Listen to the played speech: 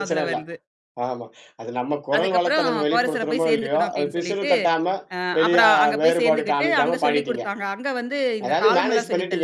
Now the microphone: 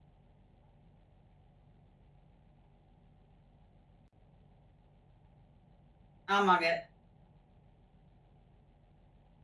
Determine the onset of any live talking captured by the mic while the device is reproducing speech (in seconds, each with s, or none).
6.3 s